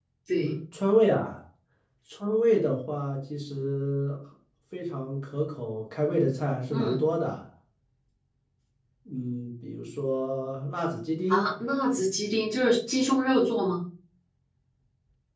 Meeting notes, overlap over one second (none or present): none